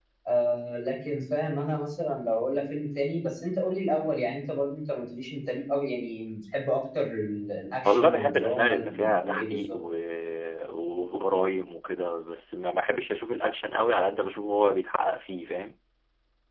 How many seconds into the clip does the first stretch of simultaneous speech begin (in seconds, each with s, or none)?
7.8 s